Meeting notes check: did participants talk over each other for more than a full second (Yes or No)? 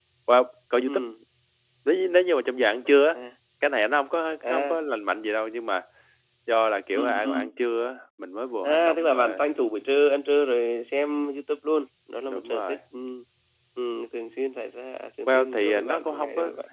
Yes